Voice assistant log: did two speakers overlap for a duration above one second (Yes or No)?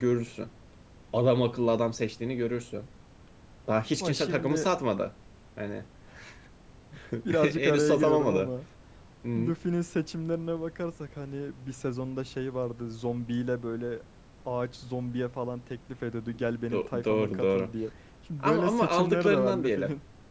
Yes